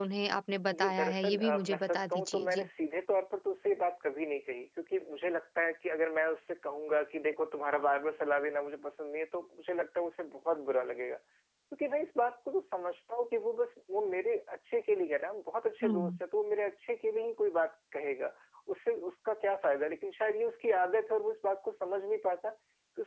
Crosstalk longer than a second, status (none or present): present